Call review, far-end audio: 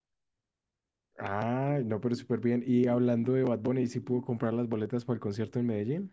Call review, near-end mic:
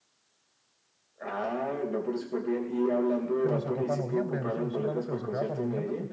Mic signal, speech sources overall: both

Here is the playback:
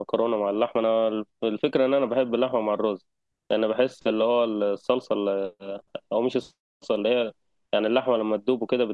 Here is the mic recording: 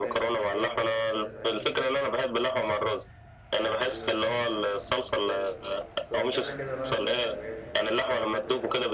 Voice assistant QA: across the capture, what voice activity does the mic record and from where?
both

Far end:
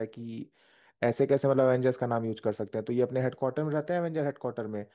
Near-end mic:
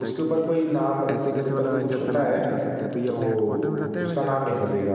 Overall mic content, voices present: both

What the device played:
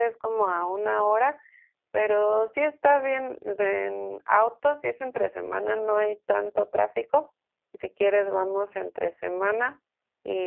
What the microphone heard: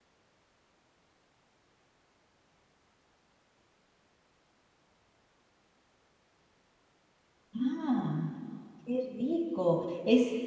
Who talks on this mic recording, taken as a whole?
user only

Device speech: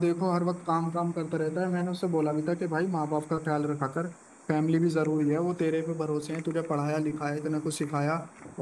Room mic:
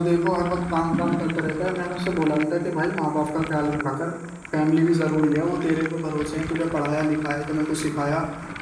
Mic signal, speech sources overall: echo only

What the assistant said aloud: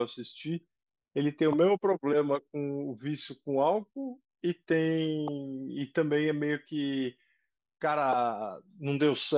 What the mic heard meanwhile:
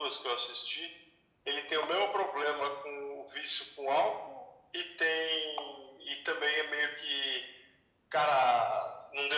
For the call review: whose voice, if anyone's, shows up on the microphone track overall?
echo only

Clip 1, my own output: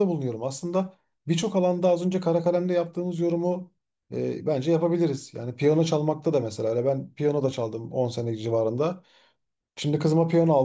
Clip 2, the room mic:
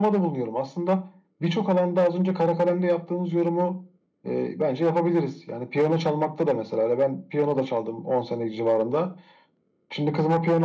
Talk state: echo only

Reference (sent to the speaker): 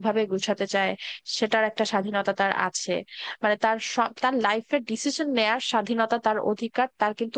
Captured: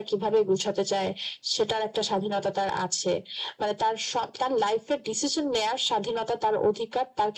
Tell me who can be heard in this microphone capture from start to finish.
echo only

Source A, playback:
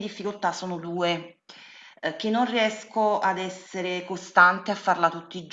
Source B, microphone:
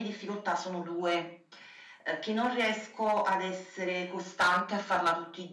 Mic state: echo only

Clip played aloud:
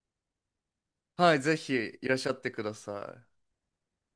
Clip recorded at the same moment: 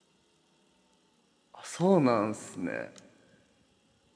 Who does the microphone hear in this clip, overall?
user only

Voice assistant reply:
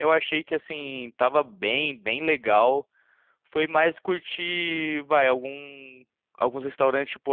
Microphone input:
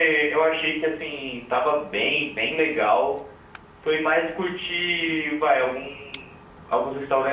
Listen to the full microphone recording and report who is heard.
echo only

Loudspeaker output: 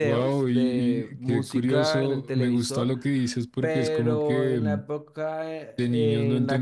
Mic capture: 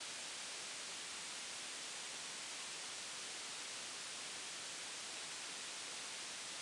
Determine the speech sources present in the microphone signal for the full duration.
neither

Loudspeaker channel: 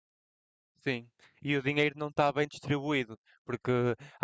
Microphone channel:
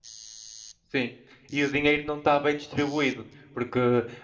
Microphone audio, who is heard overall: echo only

